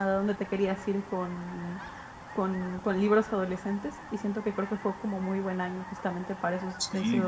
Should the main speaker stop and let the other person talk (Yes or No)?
Yes